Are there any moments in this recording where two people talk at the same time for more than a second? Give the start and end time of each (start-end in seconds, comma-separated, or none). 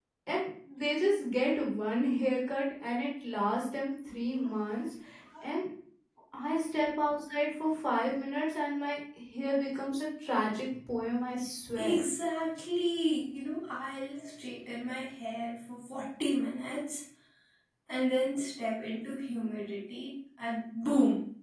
none